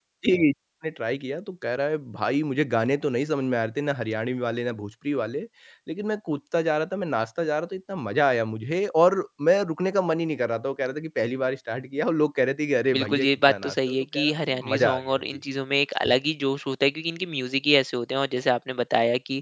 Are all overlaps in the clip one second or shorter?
No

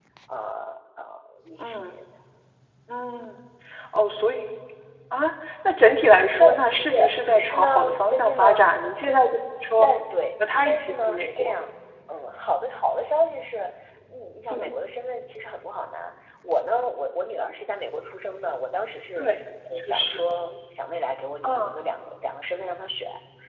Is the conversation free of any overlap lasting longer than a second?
No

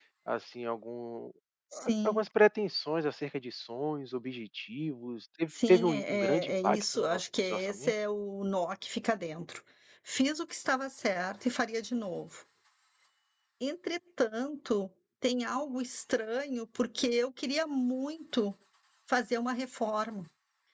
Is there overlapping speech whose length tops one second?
Yes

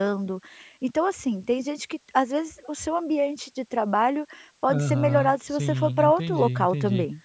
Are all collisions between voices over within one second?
No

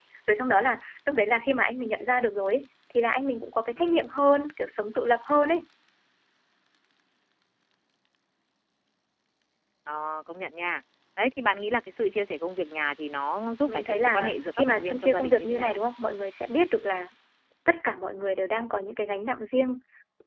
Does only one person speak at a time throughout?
No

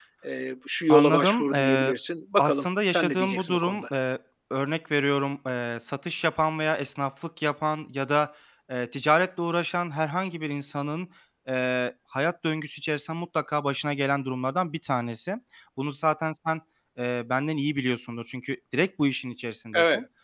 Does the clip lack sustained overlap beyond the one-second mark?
No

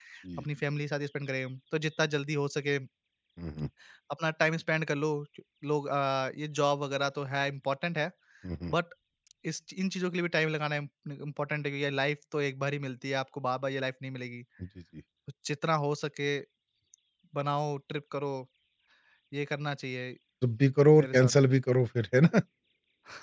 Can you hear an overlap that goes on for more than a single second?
No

